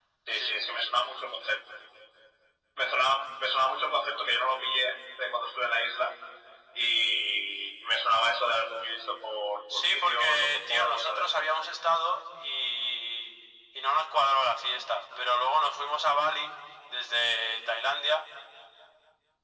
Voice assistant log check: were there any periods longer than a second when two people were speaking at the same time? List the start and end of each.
9.7-11.3

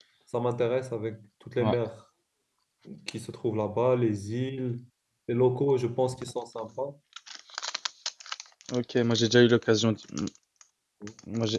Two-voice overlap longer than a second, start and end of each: none

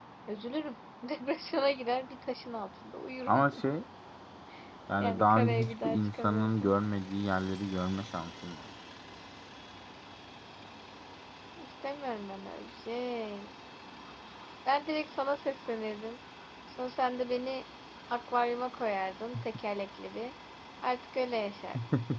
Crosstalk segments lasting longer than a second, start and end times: 5.0-6.8

